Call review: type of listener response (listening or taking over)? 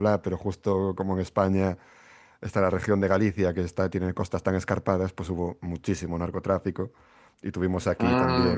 listening